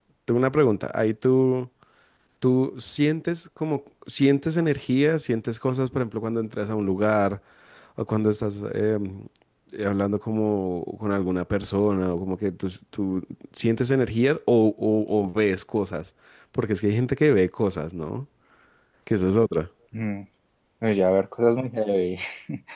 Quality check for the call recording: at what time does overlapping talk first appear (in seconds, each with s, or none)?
none